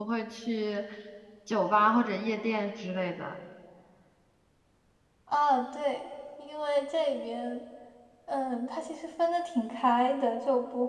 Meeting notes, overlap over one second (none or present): none